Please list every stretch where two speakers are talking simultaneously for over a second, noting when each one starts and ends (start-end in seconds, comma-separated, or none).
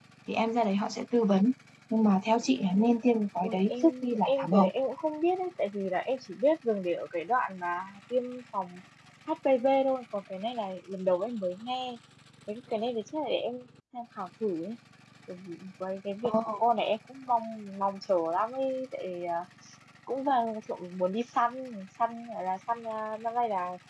3.4-4.7